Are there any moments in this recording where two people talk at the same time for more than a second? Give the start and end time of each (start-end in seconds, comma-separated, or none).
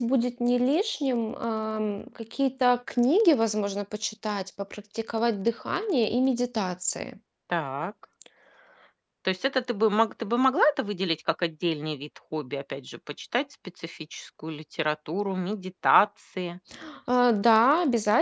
none